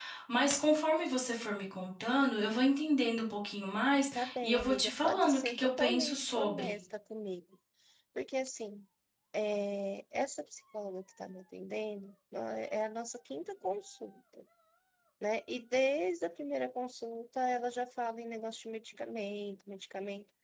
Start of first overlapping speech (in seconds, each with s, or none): 4.2 s